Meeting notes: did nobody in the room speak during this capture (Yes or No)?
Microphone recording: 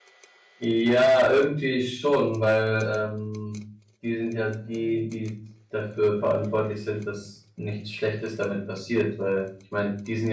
No